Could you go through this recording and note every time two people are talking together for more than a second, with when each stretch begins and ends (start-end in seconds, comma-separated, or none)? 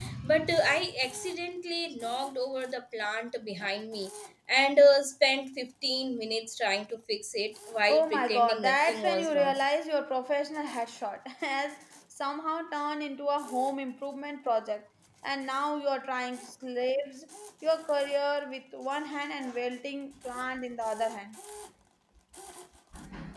7.9-9.6